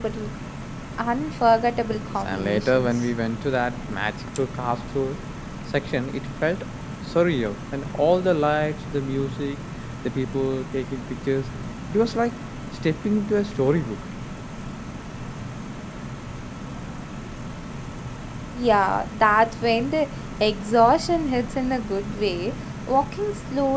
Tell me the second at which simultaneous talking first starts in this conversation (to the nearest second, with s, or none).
2 s